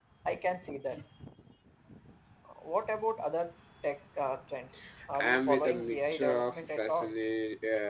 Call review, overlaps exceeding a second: present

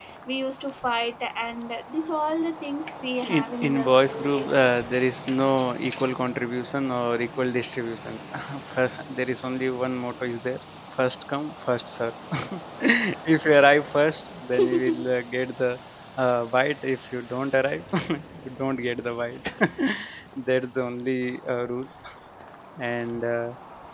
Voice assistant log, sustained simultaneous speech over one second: present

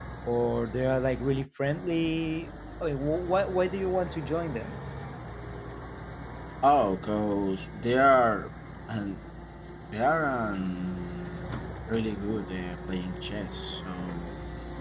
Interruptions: none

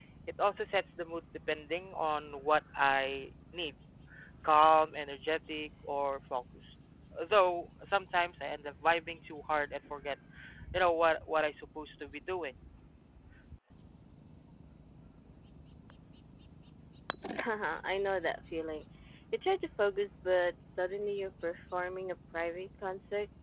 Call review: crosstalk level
none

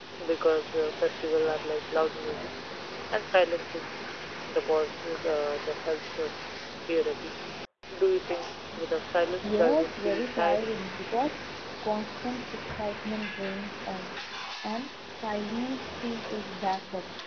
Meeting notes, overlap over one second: present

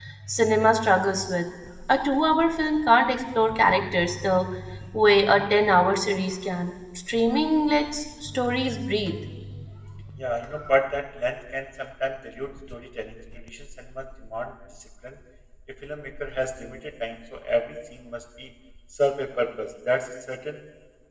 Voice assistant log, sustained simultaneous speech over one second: none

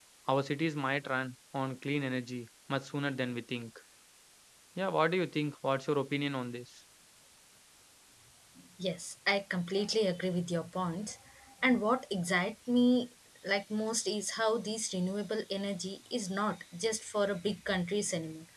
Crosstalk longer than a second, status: none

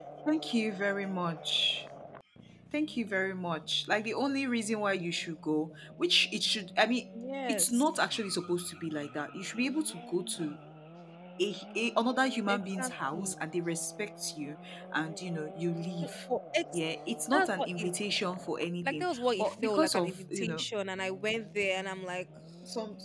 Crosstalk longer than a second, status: present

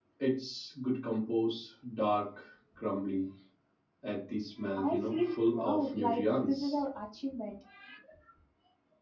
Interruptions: present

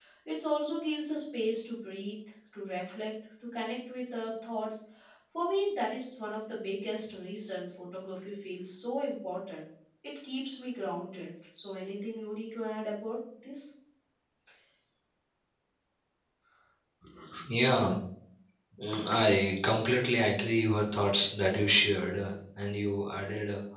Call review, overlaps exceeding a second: none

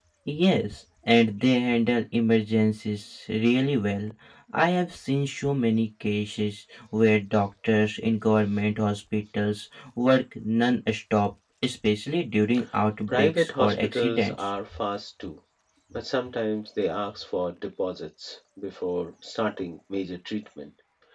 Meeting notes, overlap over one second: present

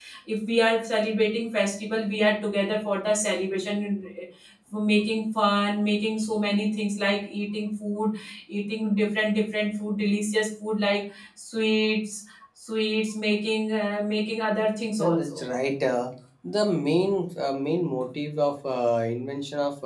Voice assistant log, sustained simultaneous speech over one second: none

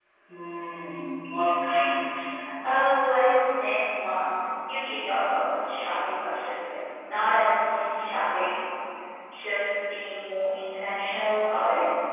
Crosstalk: none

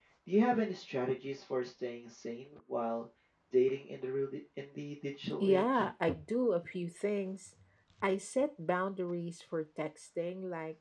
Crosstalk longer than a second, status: none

